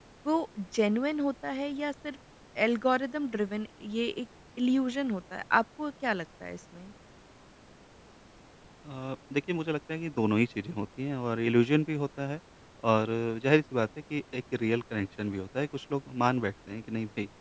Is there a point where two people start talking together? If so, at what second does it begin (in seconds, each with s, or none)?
none